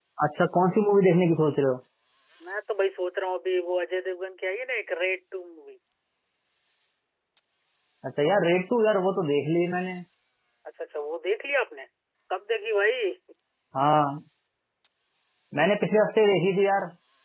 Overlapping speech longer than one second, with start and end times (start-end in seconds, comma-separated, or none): none